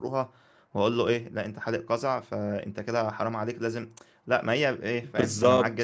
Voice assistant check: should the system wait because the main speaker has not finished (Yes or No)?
No